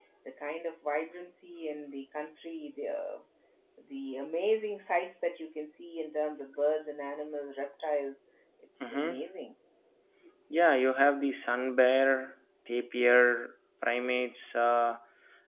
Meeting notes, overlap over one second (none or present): none